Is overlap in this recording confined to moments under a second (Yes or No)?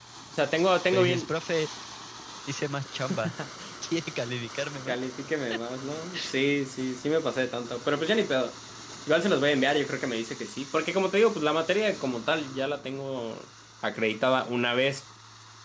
Yes